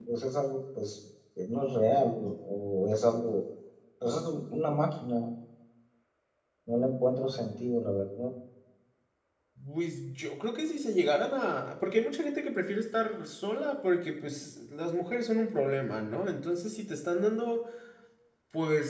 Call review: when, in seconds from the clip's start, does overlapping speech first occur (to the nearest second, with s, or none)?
none